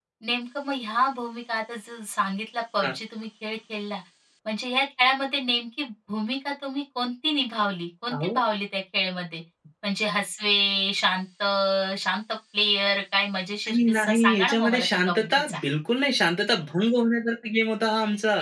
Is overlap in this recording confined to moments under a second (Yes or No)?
No